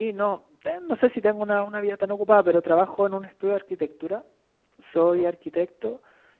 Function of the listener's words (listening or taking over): listening